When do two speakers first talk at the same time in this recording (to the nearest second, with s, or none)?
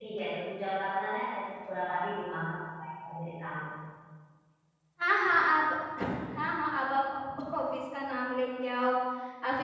none